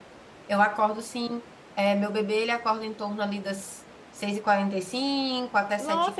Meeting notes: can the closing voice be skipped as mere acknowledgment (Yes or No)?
No